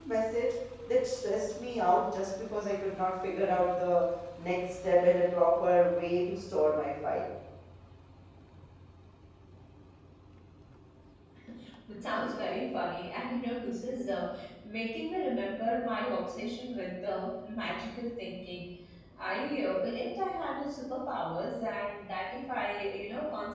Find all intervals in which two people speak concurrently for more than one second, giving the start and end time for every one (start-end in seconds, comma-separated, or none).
none